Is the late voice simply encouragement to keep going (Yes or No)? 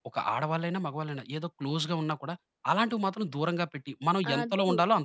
No